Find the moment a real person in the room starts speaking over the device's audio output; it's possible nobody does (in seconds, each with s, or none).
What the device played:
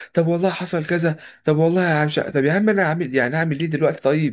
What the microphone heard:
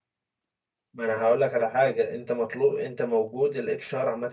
0.9 s